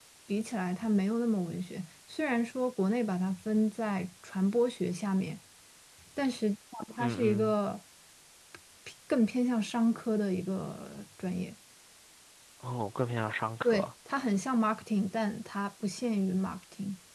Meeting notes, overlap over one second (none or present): none